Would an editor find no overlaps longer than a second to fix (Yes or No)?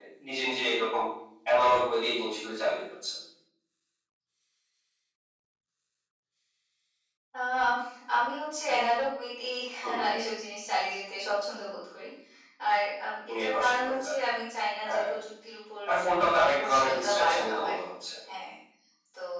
No